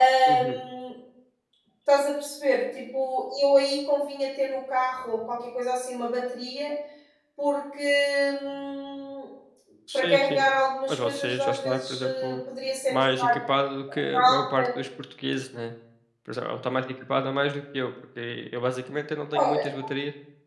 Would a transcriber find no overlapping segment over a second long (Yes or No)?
No